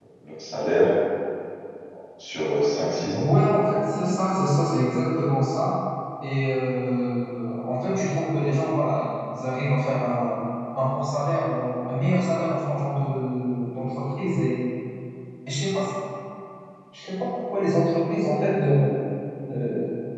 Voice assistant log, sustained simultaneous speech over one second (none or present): none